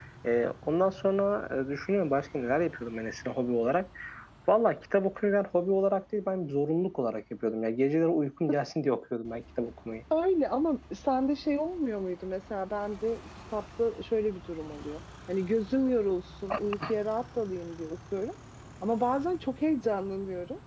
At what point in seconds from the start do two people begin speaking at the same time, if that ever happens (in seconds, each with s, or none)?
none